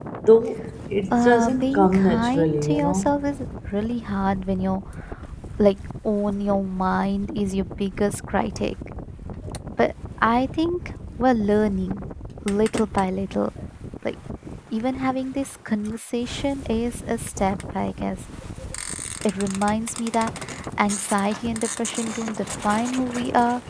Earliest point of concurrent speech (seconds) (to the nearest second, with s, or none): 1 s